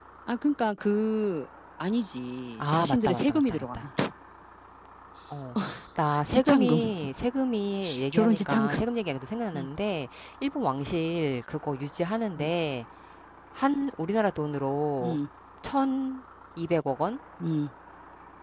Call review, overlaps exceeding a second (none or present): present